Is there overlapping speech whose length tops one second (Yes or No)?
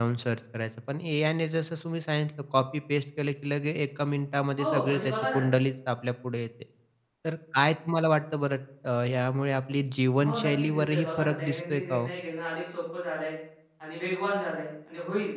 Yes